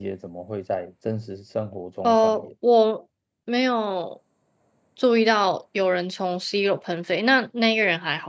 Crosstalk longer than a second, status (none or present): none